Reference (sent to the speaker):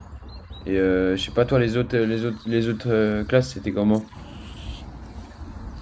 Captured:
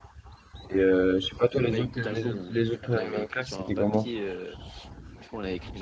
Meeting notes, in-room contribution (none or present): present